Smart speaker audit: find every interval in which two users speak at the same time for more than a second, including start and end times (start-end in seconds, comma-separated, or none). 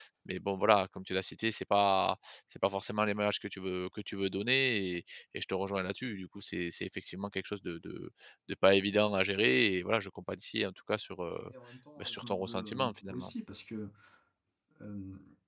12.0-13.3